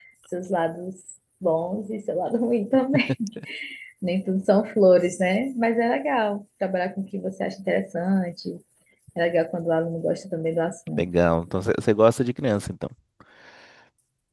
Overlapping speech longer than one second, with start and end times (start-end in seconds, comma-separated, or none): none